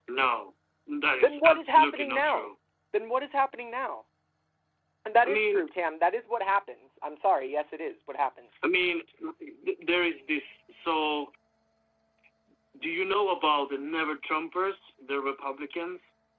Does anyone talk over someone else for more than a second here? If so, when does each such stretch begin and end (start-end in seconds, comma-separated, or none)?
1.1-2.5